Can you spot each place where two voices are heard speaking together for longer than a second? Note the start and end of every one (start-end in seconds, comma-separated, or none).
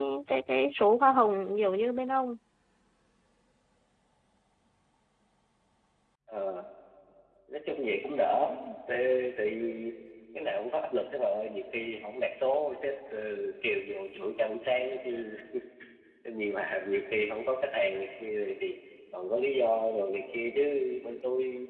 none